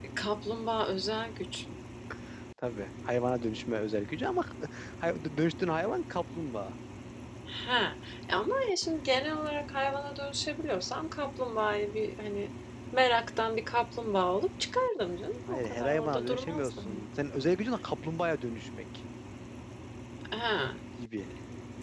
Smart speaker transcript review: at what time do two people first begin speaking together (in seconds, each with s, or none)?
15.5 s